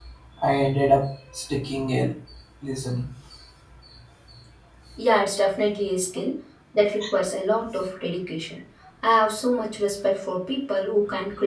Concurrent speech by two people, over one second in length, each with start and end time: none

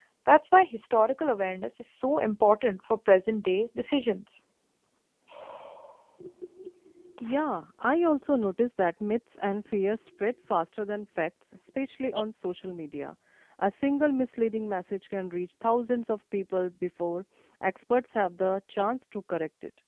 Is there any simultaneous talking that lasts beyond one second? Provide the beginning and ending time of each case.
none

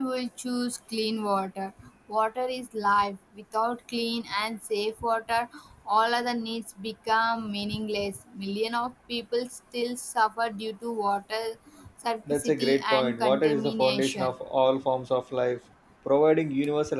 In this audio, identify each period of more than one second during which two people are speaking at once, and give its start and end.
12.3-14.3

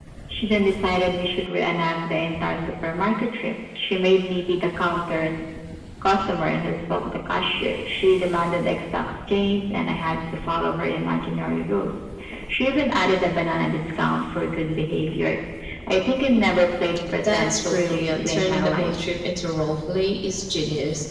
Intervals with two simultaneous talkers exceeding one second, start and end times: 17.3-18.9

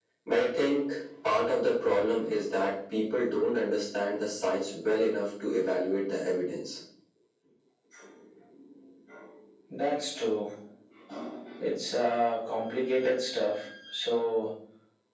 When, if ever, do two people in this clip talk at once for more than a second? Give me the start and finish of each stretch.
none

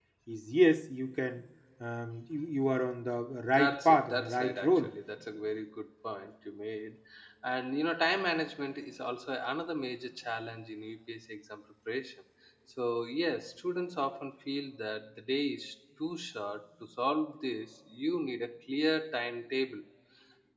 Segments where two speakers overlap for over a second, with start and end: 3.5-4.9

